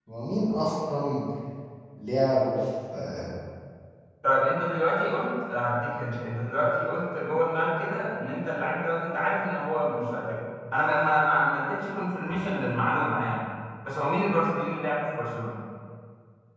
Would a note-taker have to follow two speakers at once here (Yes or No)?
No